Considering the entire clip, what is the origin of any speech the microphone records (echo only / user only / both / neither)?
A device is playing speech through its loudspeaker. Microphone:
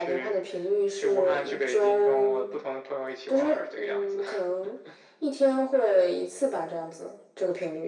echo only